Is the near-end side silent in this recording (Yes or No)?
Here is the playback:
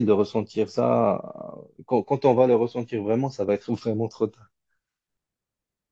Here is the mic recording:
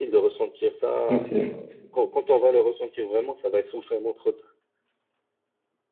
No